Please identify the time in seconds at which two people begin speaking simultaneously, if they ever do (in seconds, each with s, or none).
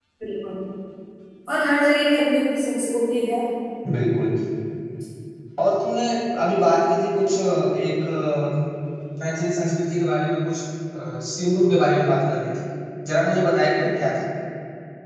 none